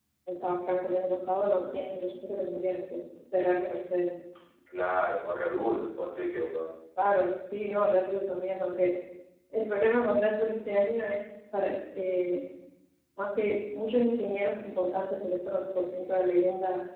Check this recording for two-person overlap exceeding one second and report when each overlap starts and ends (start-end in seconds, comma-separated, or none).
none